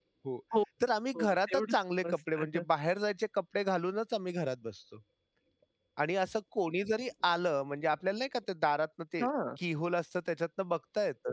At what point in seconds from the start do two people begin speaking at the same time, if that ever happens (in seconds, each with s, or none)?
1.1 s